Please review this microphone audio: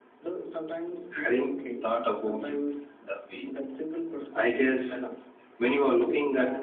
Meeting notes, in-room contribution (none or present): present